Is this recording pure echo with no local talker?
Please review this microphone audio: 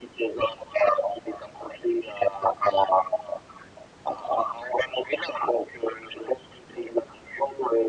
Yes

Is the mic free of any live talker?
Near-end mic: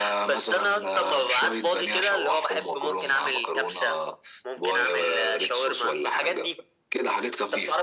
Yes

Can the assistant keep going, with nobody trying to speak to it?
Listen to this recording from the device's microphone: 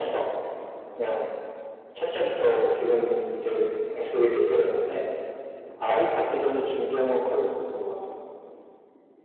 Yes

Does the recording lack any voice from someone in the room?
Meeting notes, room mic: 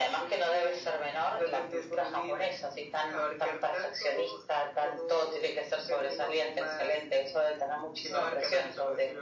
Yes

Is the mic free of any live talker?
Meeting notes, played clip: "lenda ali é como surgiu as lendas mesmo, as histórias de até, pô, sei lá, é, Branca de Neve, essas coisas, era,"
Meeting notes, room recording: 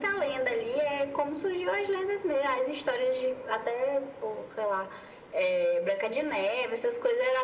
Yes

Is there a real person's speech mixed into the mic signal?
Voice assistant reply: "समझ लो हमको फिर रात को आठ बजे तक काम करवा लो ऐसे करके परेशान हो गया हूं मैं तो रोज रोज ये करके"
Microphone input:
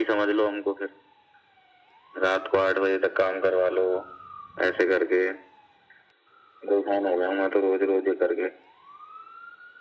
No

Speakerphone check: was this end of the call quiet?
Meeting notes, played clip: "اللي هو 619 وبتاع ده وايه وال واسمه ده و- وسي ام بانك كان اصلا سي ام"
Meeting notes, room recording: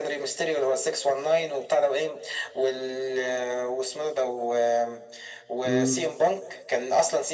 No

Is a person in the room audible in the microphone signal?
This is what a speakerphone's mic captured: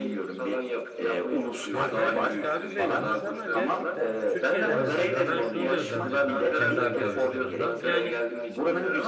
Yes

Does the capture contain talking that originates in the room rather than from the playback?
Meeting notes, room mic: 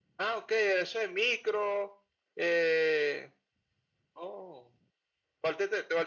No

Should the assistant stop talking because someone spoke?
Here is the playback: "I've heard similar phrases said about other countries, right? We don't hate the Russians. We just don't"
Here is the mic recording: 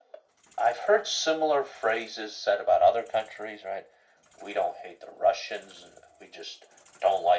No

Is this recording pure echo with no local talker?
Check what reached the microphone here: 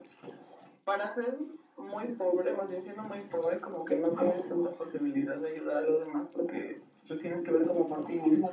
Yes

